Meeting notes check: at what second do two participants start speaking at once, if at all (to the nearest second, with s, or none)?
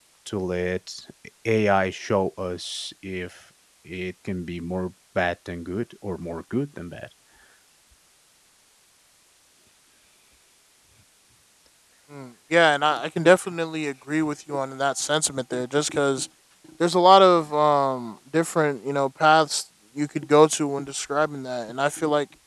none